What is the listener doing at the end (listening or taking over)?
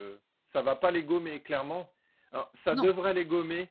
listening